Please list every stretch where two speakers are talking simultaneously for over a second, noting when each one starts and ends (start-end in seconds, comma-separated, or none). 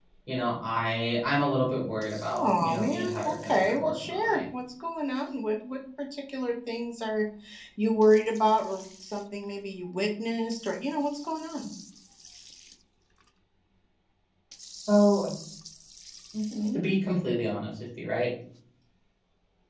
2.3-4.4